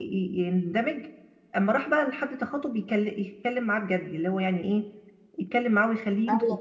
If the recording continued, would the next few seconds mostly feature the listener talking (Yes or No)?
Yes